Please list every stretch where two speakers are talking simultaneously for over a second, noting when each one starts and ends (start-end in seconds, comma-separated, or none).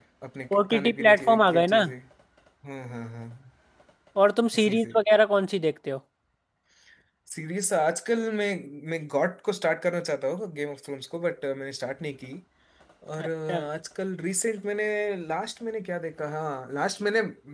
0.5-1.8